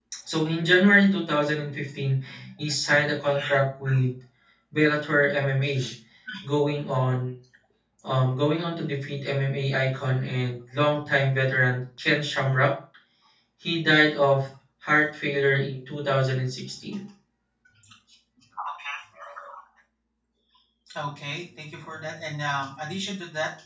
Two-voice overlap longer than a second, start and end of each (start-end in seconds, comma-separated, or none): none